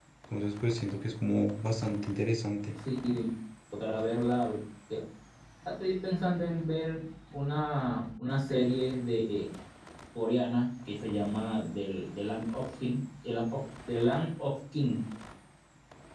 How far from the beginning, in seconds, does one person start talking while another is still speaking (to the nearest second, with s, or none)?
none